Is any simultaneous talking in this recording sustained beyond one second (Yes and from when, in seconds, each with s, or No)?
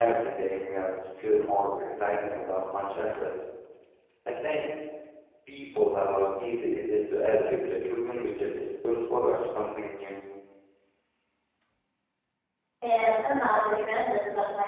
No